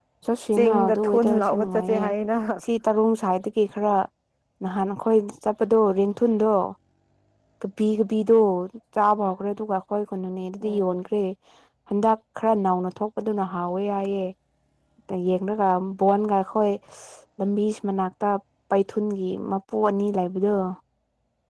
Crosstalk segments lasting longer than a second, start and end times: 0.5-2.0

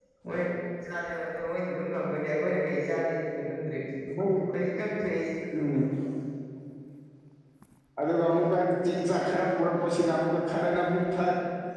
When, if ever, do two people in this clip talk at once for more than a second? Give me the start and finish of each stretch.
none

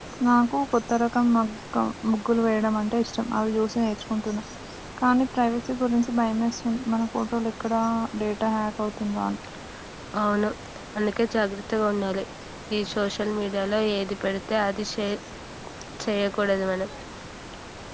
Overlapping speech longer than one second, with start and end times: none

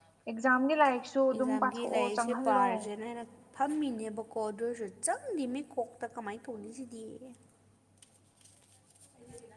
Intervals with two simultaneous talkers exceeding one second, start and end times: 1.4-2.7

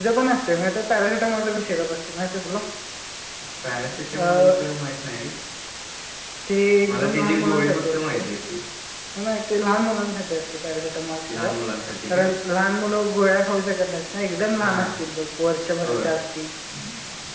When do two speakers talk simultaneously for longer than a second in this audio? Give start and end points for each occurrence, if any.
6.9-8.2

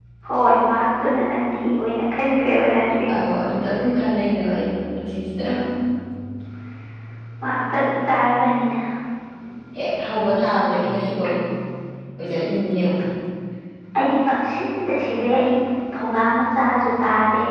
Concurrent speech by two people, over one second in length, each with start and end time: none

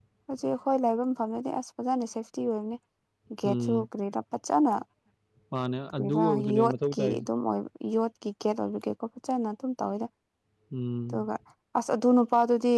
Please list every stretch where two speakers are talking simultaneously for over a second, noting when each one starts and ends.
6.0-7.2

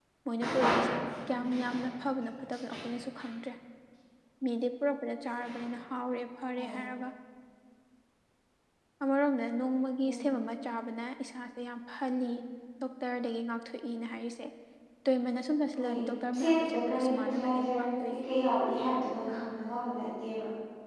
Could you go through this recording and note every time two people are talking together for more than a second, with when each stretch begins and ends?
16.4-18.2

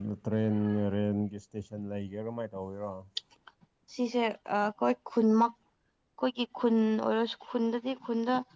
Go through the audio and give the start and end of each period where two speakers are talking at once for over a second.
none

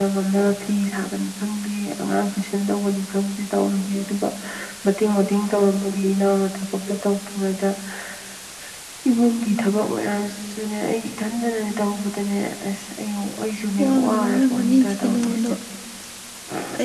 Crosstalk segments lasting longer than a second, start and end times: 13.8-15.5

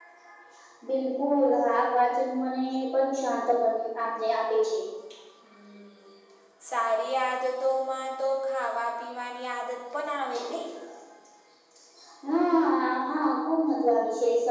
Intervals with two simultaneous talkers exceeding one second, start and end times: none

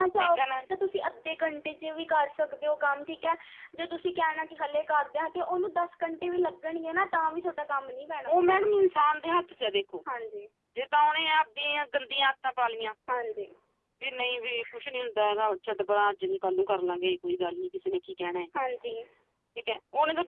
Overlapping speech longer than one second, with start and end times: none

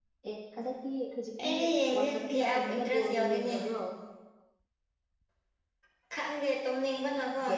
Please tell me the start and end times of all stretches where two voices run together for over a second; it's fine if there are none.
1.9-3.5

